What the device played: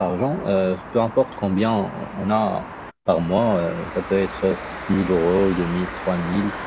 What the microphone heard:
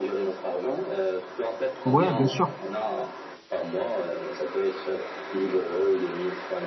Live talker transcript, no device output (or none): Ouais, bien sûr.